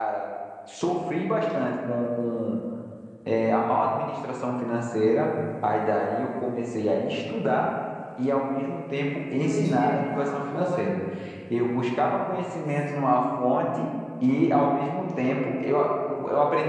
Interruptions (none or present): present